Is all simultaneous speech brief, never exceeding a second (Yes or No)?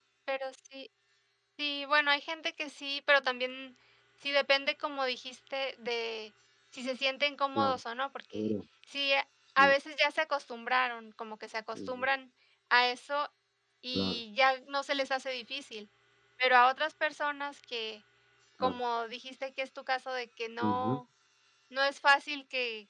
Yes